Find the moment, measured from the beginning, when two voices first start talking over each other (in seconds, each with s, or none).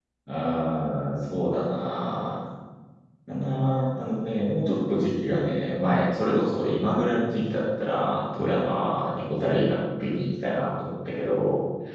none